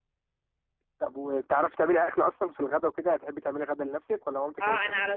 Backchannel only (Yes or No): No